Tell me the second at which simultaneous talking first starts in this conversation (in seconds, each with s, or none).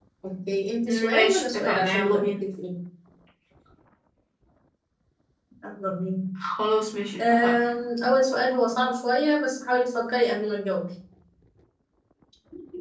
0.9 s